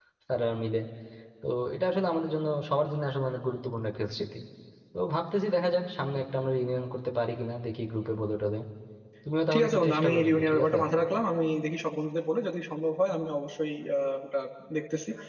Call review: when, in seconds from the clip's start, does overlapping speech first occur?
9.5 s

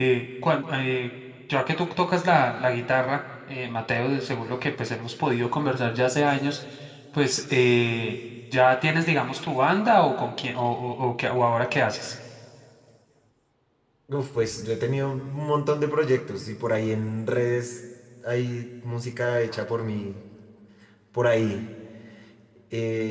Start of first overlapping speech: none

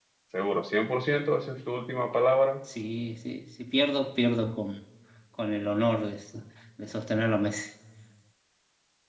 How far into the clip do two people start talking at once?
none

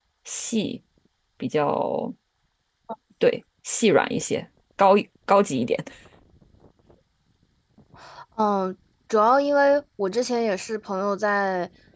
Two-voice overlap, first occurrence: none

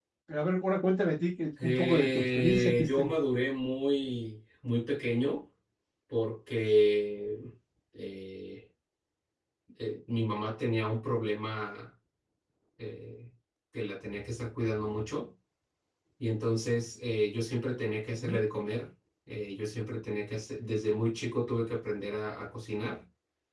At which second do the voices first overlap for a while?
1.6 s

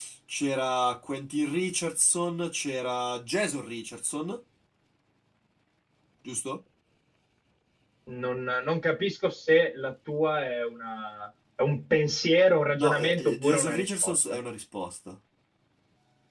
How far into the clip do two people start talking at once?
12.8 s

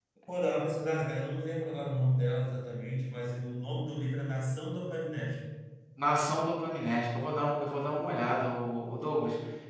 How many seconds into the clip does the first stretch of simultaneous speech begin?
none

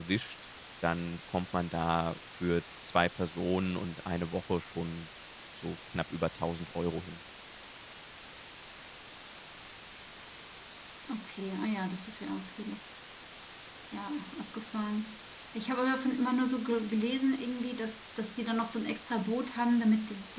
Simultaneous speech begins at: none

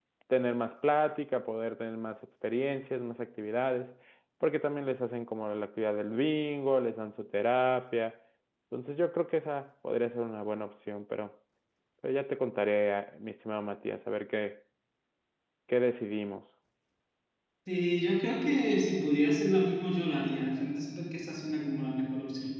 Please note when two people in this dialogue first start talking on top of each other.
none

